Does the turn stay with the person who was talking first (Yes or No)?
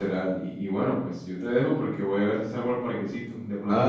Yes